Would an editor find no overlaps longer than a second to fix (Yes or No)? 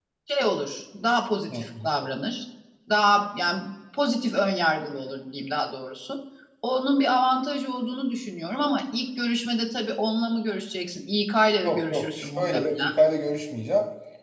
No